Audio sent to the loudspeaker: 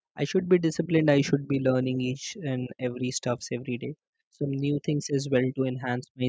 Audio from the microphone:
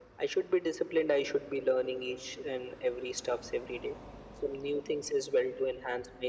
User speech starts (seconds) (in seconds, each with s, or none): none